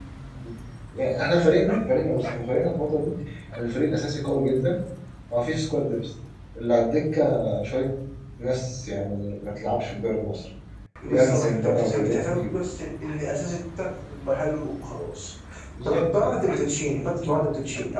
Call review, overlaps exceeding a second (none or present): present